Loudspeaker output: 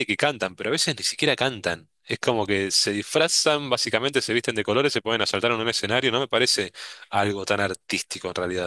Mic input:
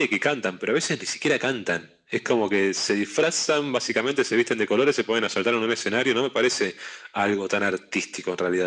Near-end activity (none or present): none